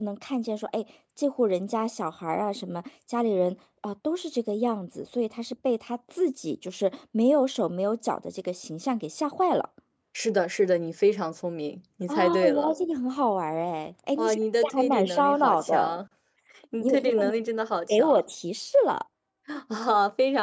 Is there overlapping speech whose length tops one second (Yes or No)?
Yes